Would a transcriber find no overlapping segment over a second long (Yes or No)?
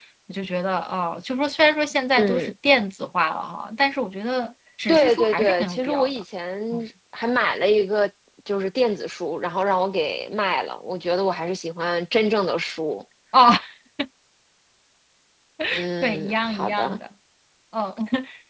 No